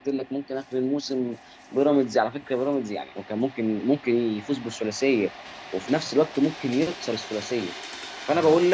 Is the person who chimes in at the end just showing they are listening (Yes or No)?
Yes